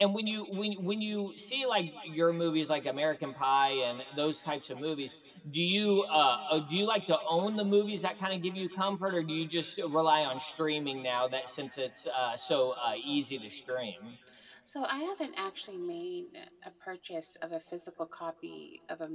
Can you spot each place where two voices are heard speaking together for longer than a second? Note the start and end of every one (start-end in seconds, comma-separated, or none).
none